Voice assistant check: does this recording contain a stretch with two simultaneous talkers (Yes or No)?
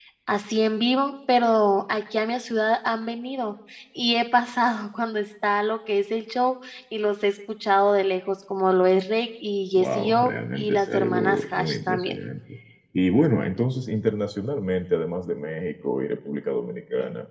Yes